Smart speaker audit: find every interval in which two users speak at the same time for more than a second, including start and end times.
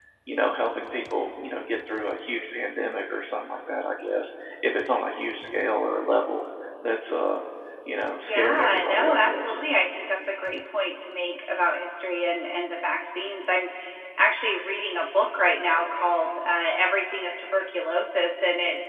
8.3-9.6

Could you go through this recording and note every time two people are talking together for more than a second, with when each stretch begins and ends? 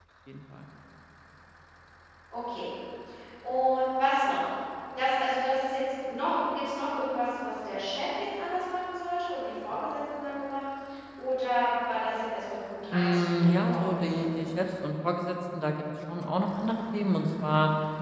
12.9-14.2

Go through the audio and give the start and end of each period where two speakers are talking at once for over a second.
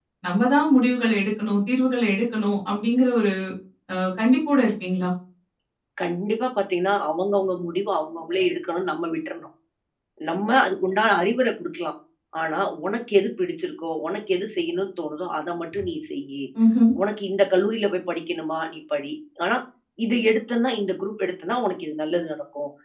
none

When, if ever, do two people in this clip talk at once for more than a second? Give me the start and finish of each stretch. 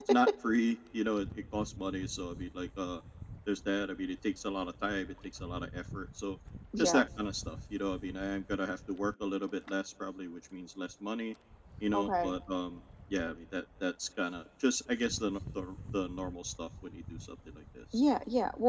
none

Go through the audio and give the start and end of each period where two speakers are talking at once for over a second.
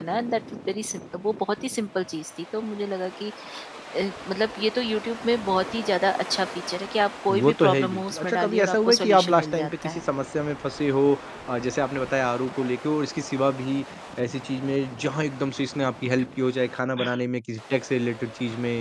7.3-10.0

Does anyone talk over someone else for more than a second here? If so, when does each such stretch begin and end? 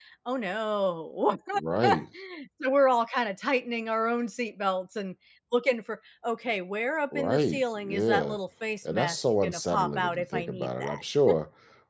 7.1-8.4, 8.9-11.0

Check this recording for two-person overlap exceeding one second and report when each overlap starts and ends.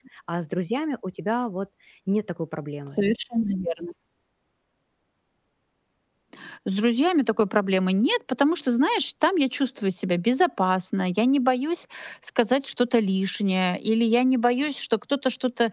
none

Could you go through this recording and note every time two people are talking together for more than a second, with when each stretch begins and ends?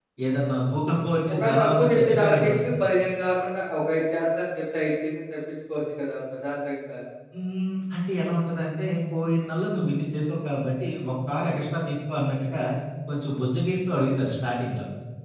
1.3-2.5

